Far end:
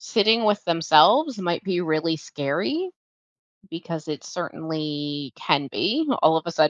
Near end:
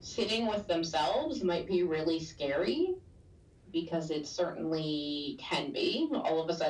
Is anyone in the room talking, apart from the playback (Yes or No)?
No